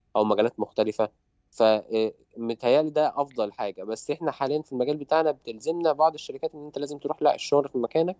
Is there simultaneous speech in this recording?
No

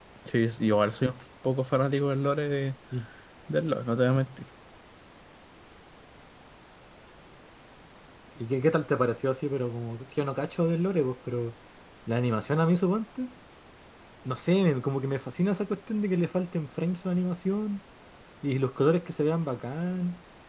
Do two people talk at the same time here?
No

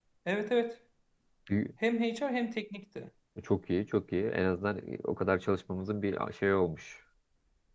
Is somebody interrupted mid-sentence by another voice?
No

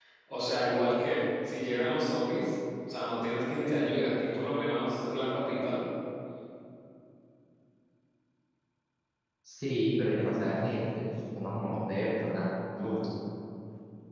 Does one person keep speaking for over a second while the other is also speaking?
No

